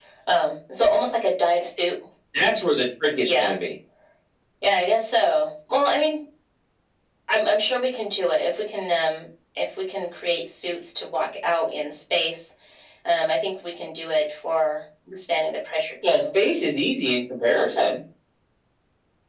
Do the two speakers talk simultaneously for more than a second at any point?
No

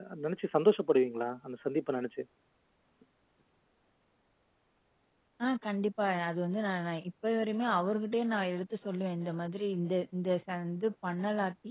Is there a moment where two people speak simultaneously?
No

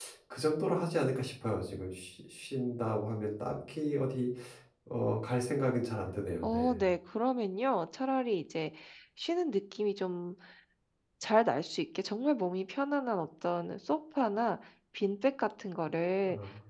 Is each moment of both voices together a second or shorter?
Yes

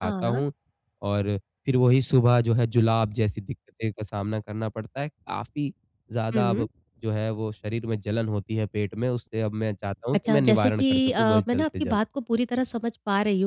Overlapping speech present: Yes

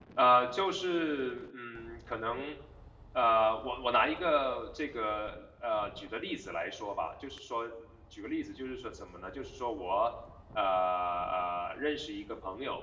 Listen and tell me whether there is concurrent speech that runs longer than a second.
No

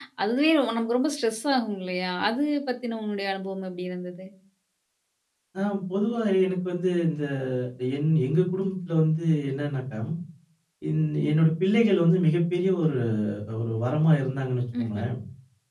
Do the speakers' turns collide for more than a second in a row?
No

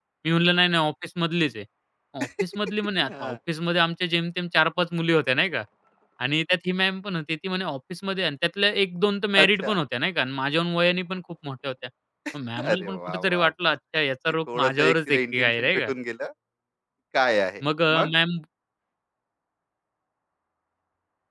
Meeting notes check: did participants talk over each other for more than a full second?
Yes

